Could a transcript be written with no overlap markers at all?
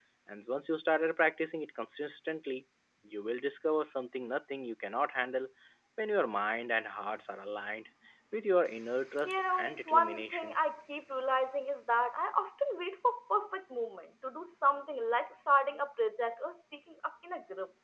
No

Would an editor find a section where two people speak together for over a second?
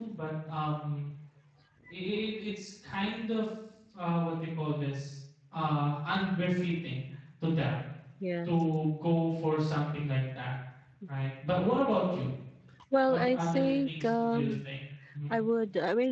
Yes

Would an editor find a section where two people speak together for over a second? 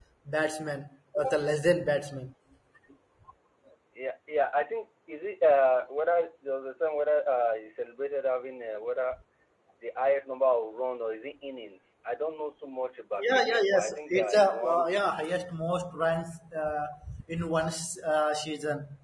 Yes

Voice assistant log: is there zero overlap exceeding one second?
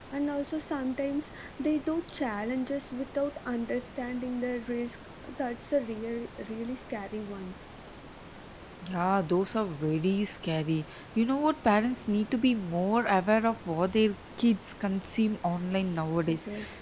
Yes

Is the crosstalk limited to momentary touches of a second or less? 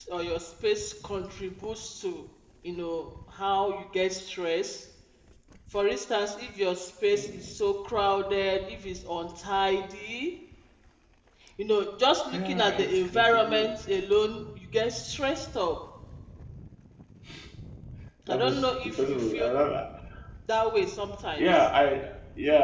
No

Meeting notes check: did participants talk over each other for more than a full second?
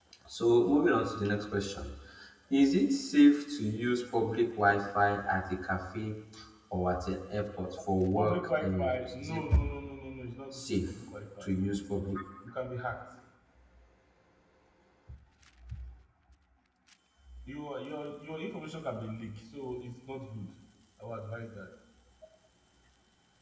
Yes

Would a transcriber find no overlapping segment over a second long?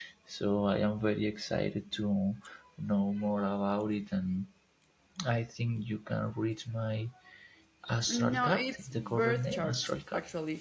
No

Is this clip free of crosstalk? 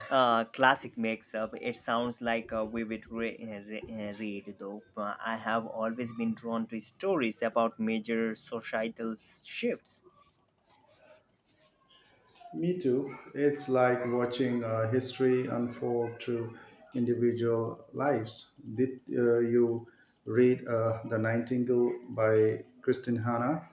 Yes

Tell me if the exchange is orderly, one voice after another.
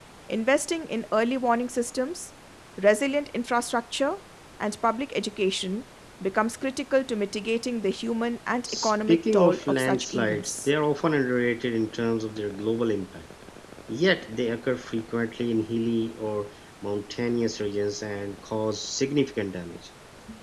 No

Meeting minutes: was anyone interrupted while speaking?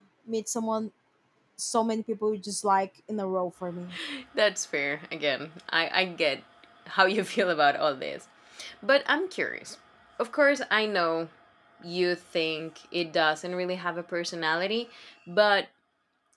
No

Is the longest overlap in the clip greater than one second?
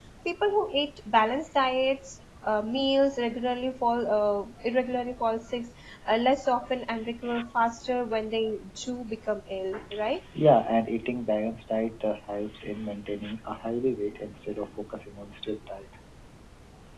No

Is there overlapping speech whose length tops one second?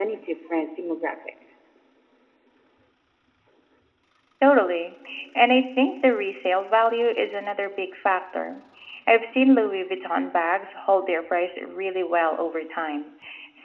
No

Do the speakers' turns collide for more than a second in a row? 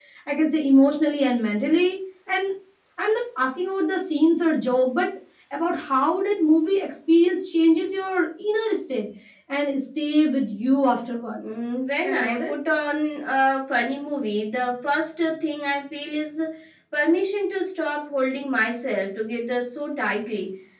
No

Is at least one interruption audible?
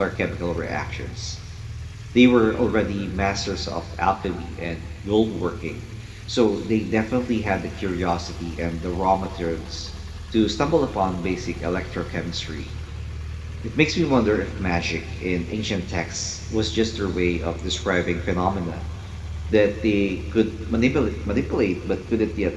No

